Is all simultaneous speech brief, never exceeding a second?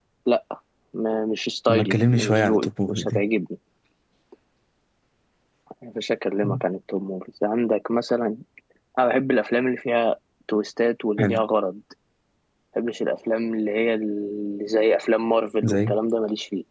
No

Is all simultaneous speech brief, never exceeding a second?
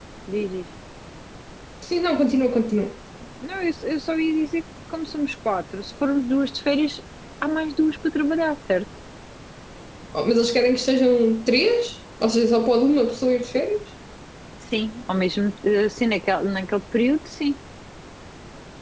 Yes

